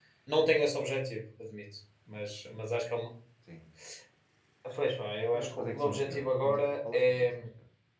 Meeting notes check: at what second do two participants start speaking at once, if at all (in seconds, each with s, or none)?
5.3 s